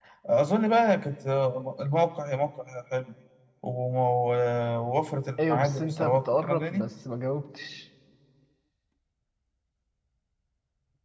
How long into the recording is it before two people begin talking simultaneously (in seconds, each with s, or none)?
5.4 s